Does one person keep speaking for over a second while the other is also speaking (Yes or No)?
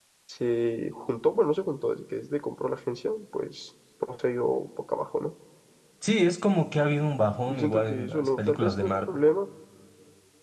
Yes